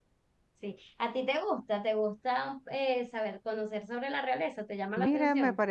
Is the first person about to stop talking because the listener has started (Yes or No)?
Yes